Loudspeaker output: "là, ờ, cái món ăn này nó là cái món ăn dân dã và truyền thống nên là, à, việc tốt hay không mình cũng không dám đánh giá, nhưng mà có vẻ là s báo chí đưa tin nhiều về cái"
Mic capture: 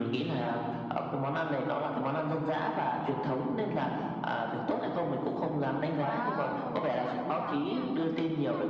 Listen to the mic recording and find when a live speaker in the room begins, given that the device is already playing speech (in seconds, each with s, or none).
5.9 s